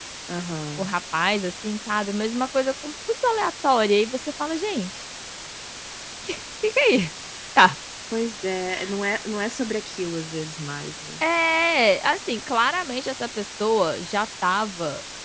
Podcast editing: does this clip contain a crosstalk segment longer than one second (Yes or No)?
No